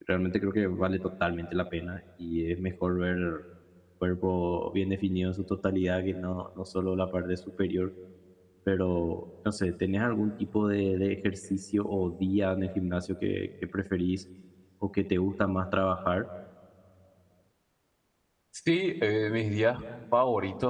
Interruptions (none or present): none